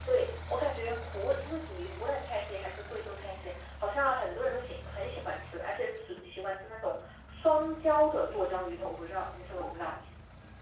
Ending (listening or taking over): taking over